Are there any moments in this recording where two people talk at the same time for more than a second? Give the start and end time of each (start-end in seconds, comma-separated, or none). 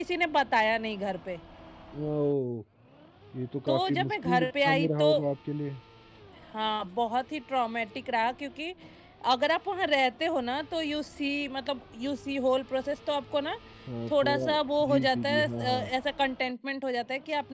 3.7-5.1, 14.1-15.6